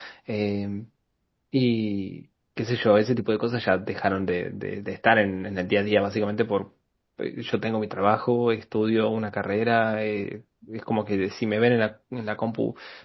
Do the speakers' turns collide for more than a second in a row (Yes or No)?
No